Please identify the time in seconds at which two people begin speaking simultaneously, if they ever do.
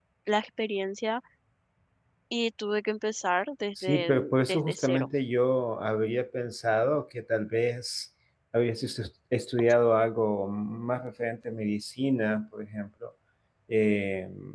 3.8 s

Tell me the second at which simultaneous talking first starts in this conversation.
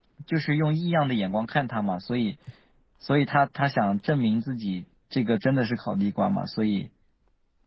none

